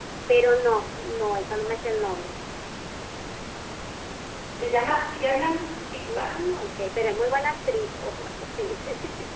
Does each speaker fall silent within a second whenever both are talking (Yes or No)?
Yes